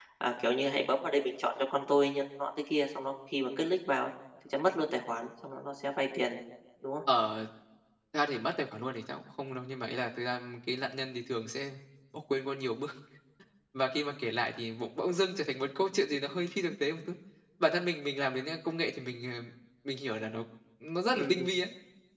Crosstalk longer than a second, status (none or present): none